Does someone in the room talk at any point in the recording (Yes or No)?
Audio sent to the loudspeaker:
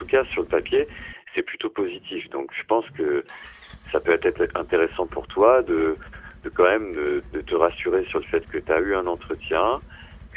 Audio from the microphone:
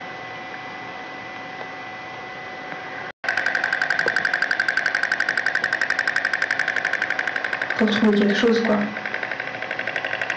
Yes